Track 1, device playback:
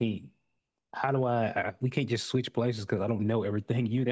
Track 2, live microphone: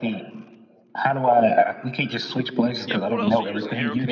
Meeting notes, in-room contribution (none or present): present